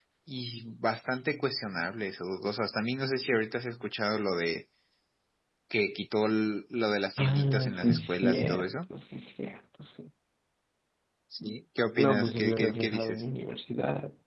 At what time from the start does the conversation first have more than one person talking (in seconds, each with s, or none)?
7.2 s